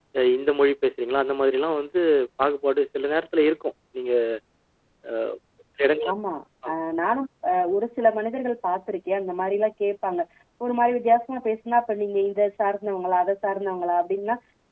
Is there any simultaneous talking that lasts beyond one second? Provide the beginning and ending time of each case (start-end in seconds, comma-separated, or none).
none